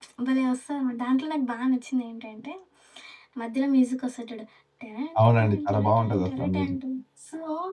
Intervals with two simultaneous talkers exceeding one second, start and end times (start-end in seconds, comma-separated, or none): 5.2-6.8